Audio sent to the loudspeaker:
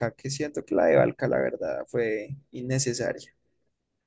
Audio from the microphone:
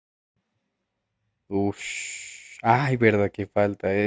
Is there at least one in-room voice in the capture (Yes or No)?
Yes